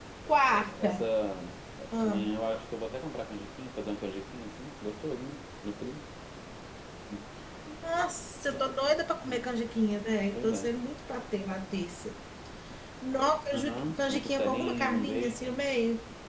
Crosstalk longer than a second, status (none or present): present